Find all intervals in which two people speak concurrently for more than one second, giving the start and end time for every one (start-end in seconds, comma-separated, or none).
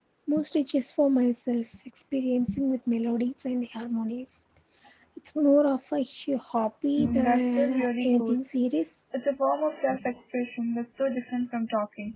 7.0-8.4